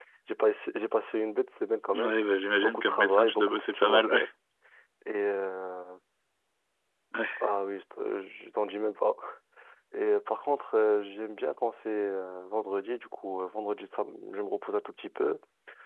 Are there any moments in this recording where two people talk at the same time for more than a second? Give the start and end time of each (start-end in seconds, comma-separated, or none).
2.6-4.2